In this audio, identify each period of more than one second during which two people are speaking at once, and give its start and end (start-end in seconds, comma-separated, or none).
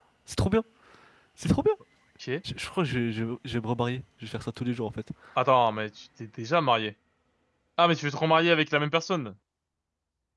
none